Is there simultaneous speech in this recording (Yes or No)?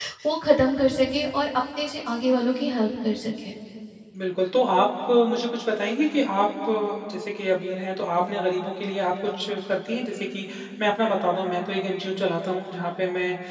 No